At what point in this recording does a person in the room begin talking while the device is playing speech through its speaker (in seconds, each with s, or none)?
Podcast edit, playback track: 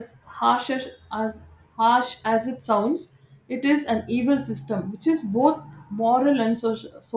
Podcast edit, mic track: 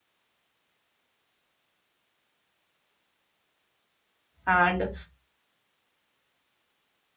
4.5 s